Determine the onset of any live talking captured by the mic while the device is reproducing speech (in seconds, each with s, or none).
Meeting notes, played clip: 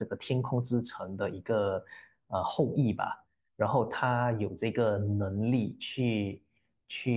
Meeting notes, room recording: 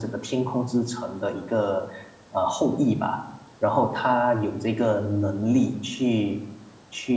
none